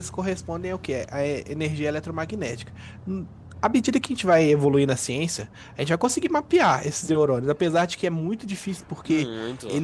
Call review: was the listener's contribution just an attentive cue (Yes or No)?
Yes